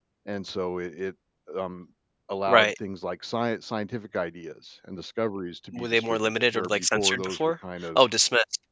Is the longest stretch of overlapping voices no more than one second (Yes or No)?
No